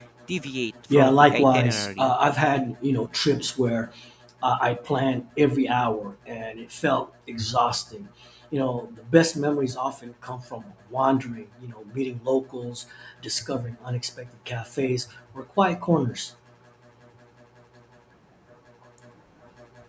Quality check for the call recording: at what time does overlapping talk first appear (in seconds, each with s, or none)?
0.9 s